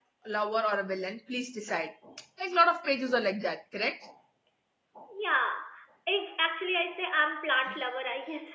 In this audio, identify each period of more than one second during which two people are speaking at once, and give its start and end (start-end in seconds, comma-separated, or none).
none